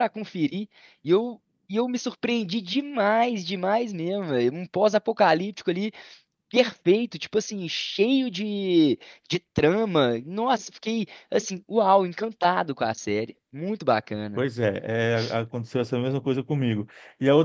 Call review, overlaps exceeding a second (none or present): none